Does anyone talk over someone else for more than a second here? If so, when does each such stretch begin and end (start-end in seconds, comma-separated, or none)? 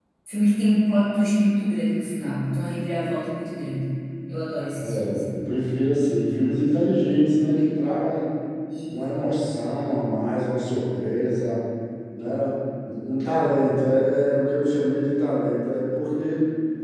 none